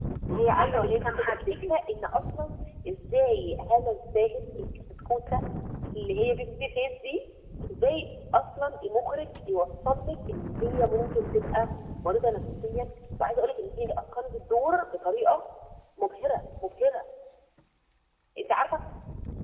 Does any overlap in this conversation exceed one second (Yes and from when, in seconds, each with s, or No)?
Yes, from 0.5 s